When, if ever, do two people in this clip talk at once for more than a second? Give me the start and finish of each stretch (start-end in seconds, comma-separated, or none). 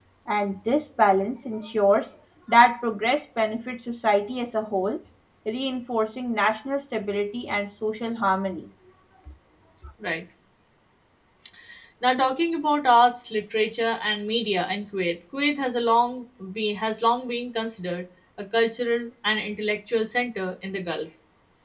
none